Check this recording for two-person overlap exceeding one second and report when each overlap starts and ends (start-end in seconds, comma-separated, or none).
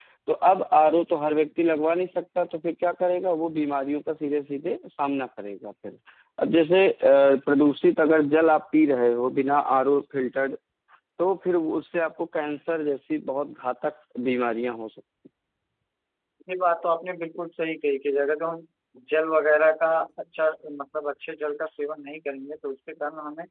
none